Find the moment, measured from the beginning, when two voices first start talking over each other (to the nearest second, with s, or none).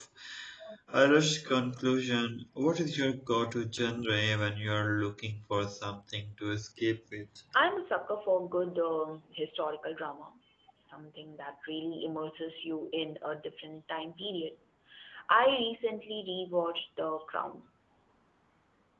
none